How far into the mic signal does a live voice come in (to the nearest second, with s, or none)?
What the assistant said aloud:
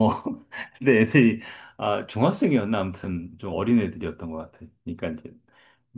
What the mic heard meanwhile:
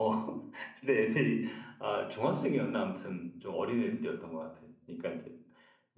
none